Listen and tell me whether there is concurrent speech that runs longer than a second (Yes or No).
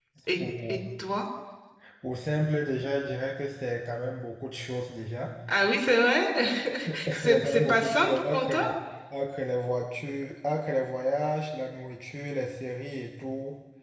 Yes